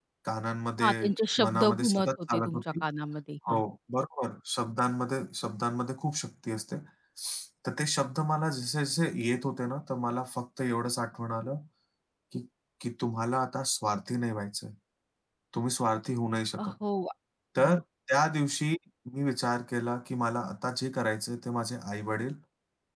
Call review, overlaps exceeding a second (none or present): present